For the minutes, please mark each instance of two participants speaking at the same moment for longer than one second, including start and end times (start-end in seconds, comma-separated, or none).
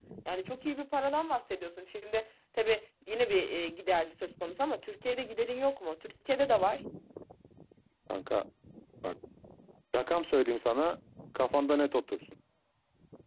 none